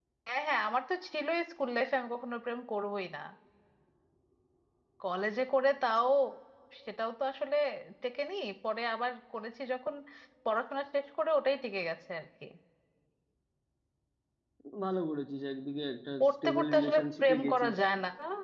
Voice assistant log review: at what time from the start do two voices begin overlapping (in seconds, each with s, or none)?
16.2 s